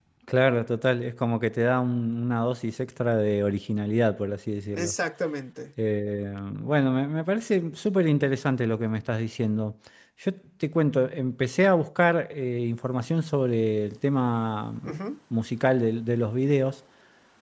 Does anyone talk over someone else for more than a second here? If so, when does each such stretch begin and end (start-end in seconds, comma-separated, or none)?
none